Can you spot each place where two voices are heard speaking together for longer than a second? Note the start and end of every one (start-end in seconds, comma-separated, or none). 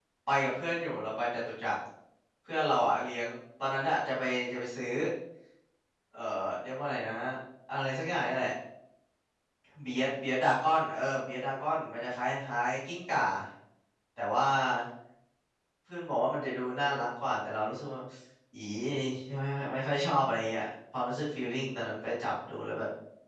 none